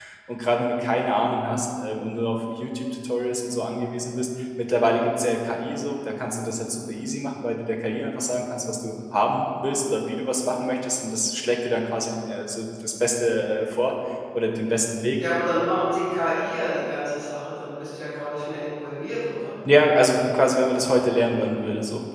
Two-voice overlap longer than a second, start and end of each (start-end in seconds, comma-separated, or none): none